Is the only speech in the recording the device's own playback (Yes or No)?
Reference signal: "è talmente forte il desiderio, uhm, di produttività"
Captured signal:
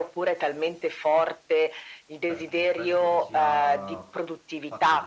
No